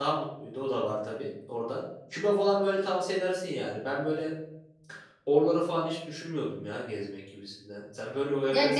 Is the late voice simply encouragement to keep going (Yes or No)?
No